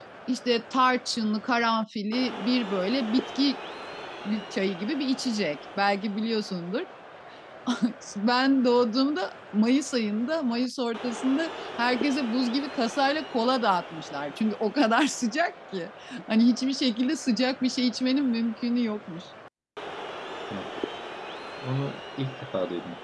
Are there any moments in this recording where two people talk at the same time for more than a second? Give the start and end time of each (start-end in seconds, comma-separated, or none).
none